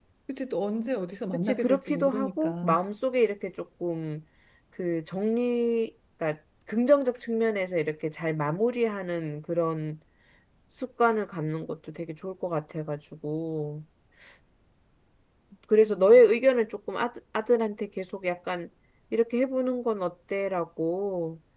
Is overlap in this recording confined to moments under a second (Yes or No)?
No